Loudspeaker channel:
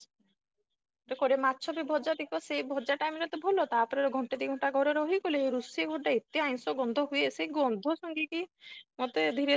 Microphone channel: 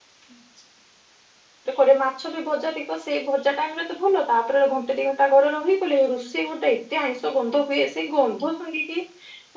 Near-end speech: none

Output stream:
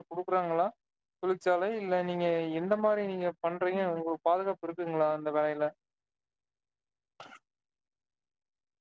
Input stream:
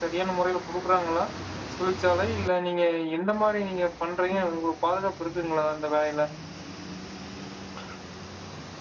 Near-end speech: none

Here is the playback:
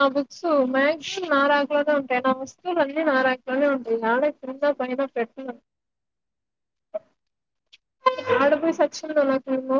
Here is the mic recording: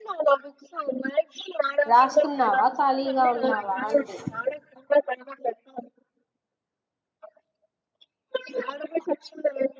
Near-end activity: present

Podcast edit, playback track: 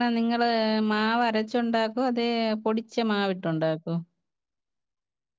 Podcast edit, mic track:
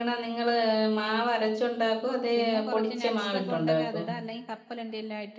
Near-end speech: present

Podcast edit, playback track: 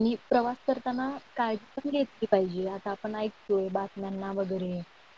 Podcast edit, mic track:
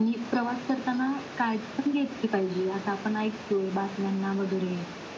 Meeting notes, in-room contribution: none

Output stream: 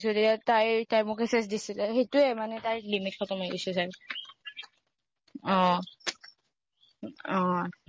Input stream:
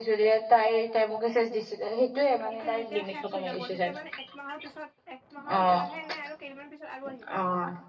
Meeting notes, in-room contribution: present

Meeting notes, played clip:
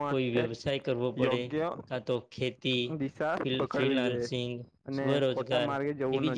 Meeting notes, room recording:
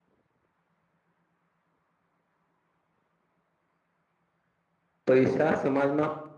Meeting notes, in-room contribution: present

